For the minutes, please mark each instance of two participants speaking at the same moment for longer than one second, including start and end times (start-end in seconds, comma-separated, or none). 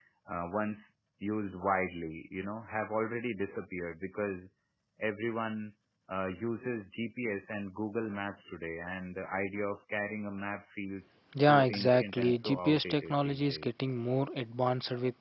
11.3-13.7